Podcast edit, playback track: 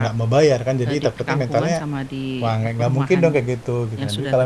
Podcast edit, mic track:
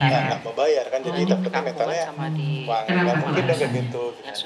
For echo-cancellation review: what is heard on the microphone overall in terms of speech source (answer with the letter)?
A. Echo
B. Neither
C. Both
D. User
C